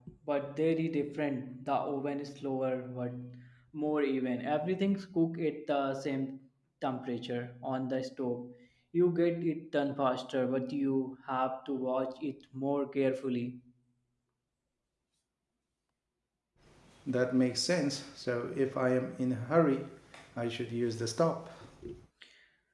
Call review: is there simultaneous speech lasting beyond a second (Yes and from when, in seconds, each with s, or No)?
No